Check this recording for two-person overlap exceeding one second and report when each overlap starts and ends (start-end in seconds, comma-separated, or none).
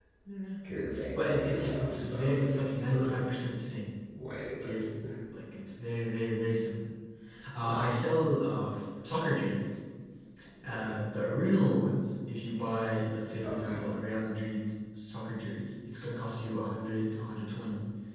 1.1-3.2